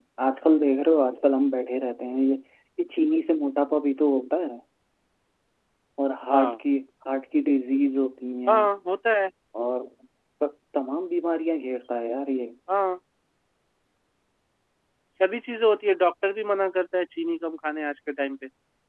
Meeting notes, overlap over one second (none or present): none